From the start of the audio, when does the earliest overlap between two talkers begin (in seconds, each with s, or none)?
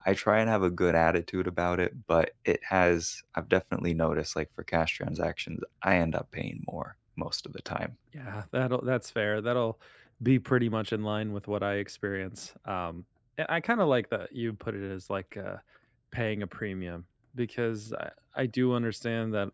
none